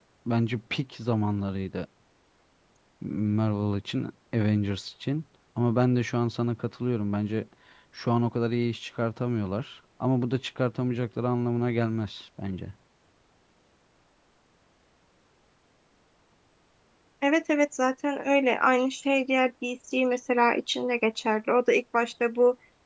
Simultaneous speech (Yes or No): No